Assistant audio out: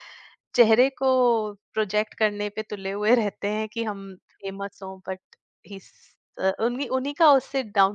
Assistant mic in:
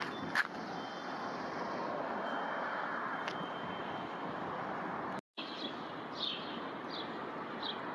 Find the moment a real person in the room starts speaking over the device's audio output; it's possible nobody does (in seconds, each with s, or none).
none